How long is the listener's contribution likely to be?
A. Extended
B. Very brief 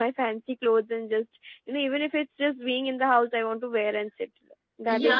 A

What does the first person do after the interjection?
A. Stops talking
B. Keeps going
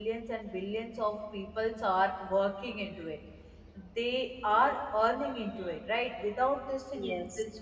B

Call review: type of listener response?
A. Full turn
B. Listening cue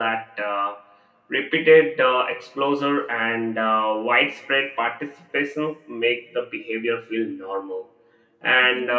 B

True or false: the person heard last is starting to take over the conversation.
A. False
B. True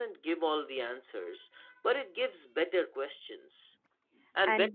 A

